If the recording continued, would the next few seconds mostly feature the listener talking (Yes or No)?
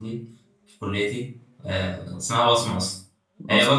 No